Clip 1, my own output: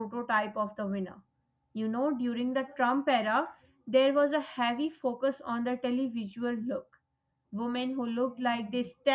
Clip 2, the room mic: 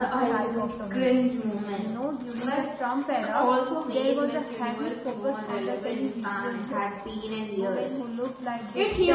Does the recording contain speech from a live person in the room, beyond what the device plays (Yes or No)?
Yes